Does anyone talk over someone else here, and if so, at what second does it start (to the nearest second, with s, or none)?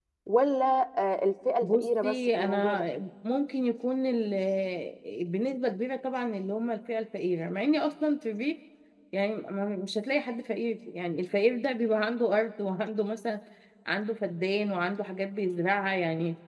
2 s